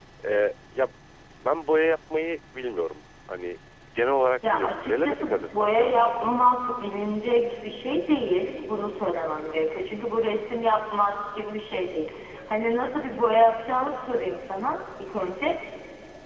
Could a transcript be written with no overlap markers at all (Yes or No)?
No